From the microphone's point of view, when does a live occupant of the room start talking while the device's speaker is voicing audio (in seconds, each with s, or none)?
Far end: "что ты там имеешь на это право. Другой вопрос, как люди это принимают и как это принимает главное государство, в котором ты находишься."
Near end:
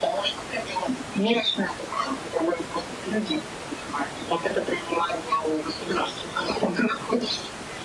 none